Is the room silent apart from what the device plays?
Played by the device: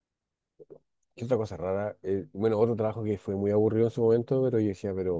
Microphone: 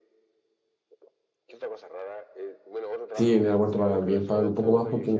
No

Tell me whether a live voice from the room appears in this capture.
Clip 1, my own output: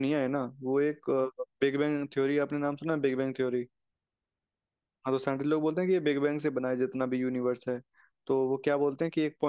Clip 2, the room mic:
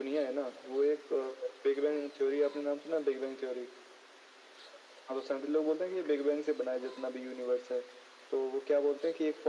No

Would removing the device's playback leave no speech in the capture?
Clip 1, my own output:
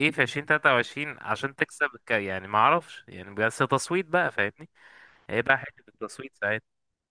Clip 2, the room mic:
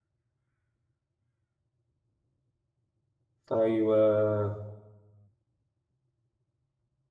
No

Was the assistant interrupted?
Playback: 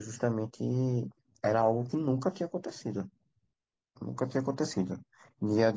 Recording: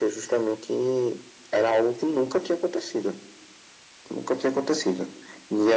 No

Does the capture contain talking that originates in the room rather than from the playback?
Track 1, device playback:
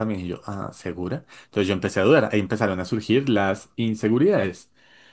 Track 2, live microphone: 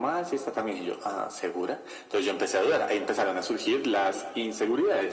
No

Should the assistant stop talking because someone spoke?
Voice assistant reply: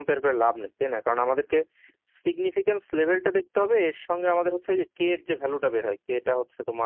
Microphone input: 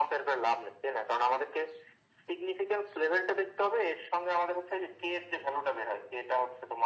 No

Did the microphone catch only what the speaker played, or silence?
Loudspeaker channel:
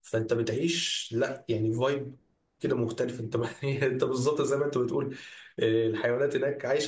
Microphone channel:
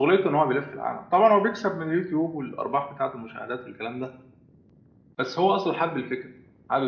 No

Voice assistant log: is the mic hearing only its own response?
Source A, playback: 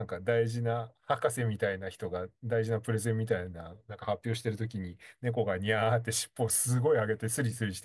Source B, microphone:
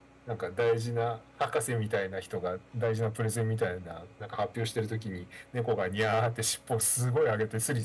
Yes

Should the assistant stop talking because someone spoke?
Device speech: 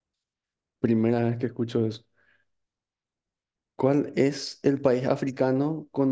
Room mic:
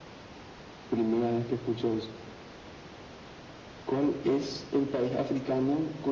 No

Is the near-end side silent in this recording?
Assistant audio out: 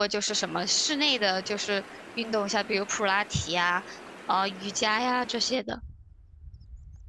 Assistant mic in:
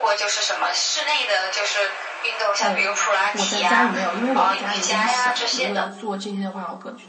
No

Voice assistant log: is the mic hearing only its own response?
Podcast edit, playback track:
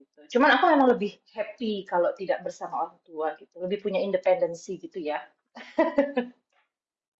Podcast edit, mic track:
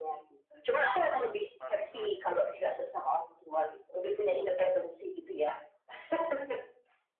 No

